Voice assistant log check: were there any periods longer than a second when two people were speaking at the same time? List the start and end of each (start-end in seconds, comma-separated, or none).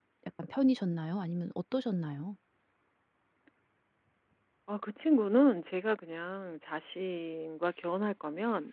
none